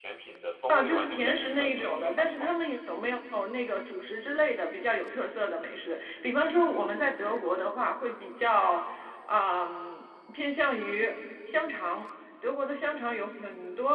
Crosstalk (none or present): present